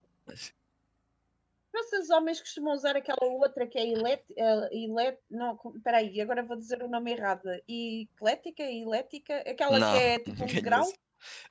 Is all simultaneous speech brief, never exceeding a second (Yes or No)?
No